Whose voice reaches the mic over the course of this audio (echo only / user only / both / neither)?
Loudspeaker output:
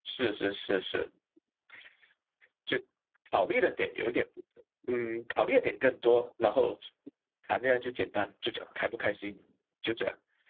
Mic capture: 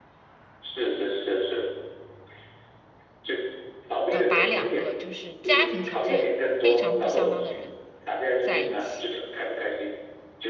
both